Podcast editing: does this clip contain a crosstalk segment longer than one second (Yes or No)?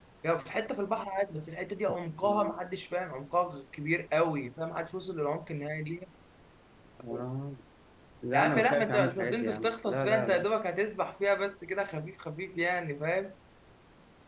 Yes